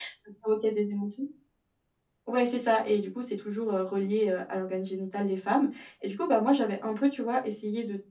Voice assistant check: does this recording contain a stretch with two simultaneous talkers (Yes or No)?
No